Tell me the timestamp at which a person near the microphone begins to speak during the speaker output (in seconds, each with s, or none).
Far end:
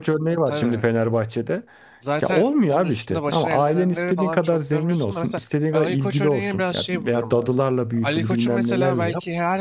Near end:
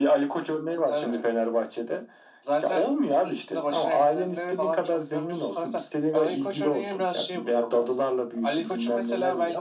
none